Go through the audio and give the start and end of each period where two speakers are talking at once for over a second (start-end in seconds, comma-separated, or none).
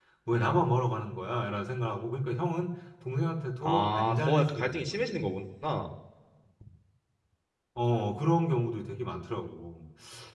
3.6-5.2